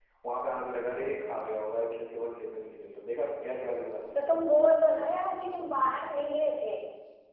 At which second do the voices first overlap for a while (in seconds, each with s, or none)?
none